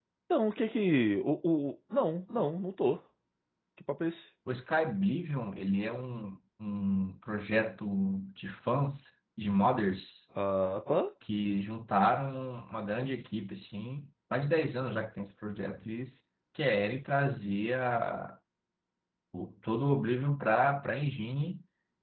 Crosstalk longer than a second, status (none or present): none